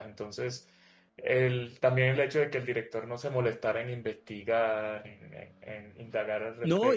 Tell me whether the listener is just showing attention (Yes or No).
No